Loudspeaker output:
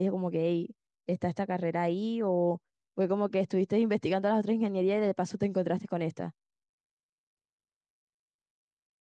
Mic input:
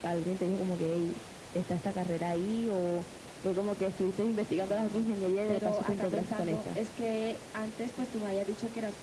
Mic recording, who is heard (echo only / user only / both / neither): both